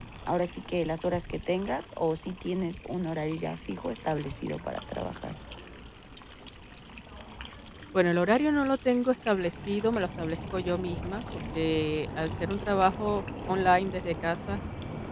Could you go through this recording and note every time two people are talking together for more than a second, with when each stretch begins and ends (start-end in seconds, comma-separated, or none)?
none